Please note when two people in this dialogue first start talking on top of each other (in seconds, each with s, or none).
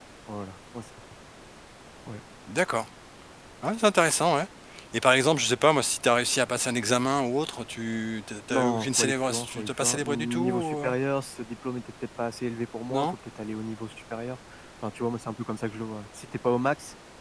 8.5 s